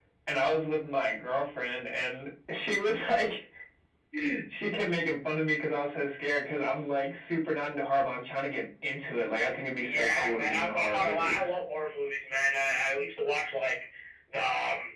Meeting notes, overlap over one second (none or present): present